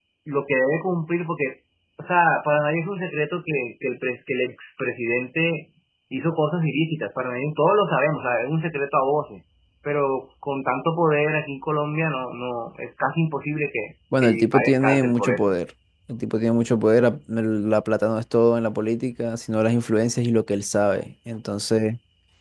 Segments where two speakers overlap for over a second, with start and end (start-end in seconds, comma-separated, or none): 14.2-15.5